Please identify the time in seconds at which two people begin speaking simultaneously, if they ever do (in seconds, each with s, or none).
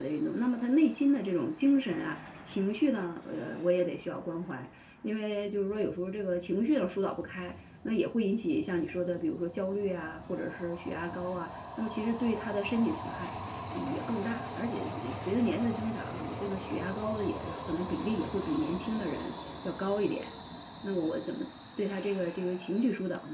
none